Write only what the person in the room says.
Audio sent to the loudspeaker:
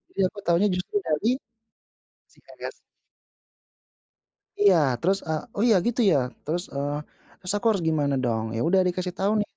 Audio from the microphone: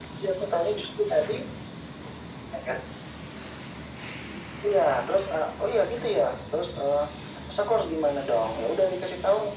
none

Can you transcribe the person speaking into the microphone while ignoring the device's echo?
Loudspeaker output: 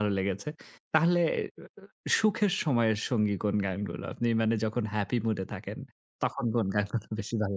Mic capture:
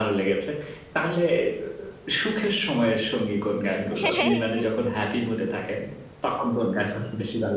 হ্যাঁ, হ্যাঁ, হ্যাঁ।

